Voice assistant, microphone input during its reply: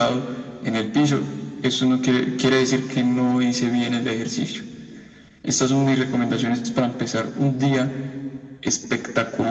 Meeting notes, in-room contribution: none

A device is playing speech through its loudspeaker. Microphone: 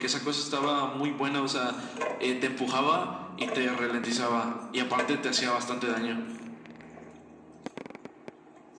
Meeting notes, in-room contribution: none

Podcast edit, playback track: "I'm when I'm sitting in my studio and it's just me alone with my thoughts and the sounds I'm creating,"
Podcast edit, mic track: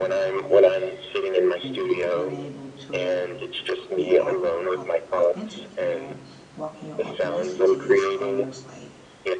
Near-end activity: present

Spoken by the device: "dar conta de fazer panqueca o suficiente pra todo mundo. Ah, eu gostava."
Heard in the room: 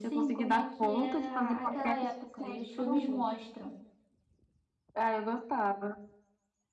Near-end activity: present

